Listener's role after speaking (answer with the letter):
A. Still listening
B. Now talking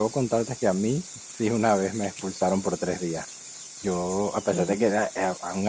A